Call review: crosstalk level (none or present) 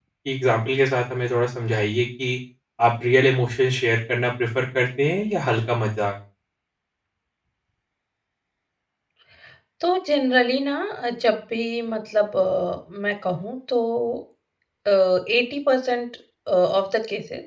none